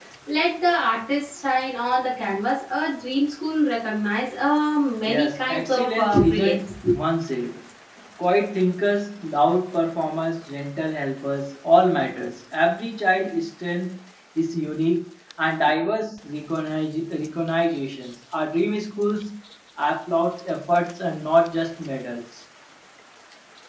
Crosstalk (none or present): present